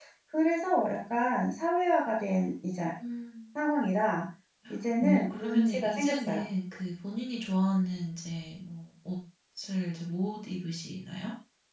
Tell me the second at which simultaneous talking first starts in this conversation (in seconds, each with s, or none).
5.0 s